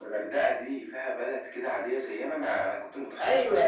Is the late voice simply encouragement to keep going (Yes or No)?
No